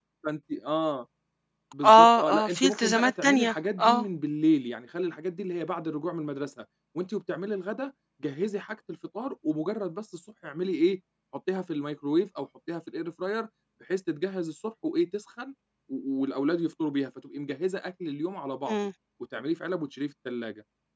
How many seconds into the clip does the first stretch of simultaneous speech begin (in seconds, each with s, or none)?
1.8 s